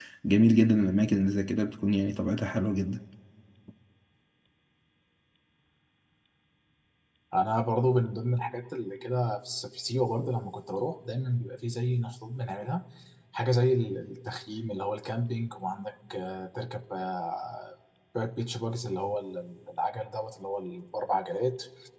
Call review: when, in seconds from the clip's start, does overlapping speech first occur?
none

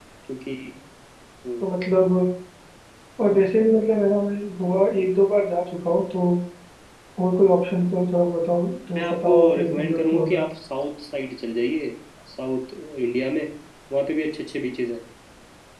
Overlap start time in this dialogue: 9.0 s

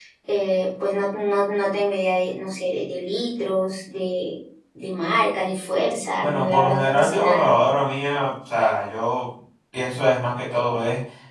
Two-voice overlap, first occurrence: 6.2 s

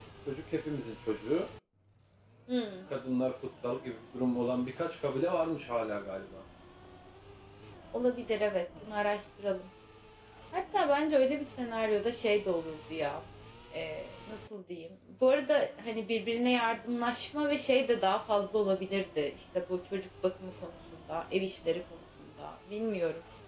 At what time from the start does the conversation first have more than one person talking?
none

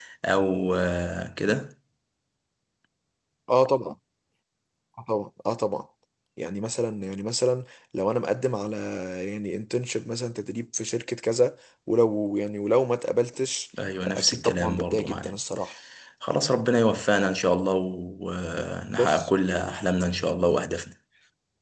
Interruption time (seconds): 14.0 s

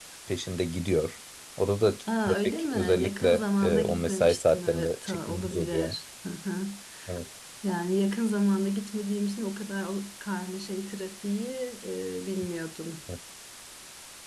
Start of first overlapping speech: 2.1 s

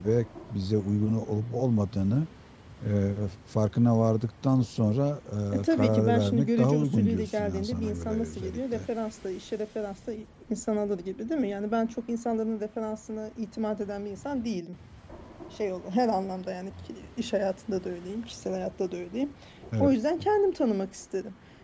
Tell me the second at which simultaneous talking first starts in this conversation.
5.6 s

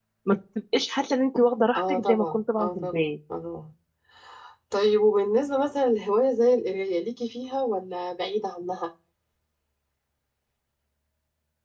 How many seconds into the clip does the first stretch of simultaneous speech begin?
1.8 s

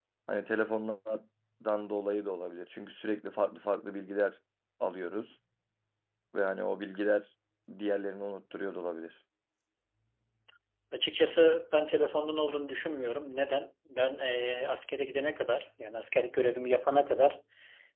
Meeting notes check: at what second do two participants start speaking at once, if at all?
none

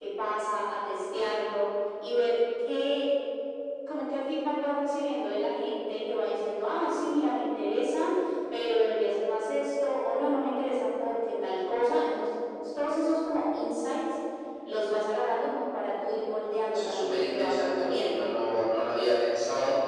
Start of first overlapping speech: 16.7 s

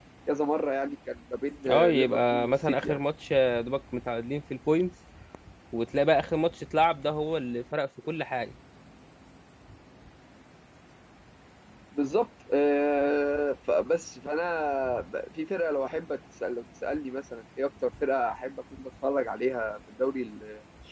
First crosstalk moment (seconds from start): 1.6 s

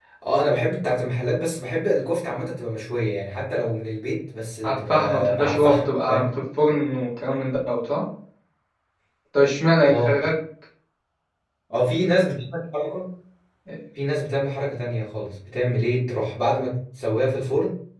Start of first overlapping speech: 4.7 s

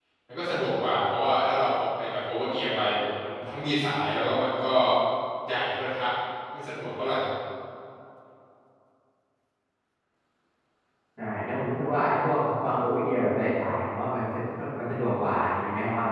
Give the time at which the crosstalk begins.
none

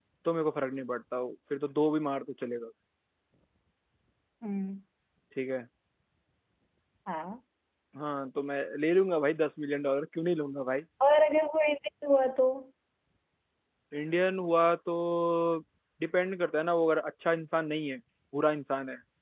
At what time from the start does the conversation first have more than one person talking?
none

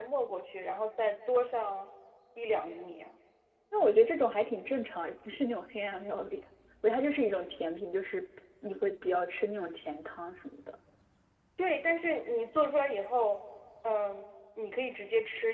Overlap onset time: none

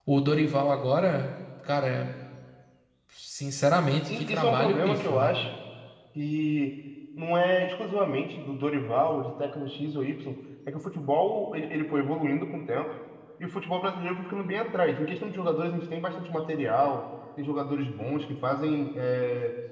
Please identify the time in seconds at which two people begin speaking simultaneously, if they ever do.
4.1 s

